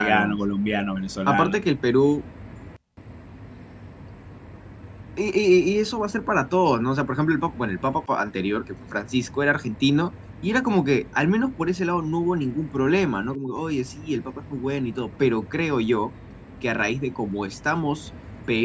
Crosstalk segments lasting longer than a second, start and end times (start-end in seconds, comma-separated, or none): none